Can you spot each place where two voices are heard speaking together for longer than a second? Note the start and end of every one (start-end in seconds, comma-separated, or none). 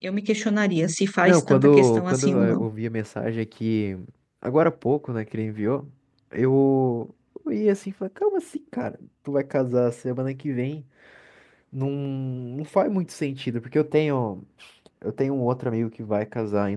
1.2-2.6